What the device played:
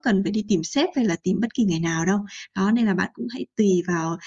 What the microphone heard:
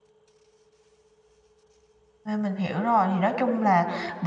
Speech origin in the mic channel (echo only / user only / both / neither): user only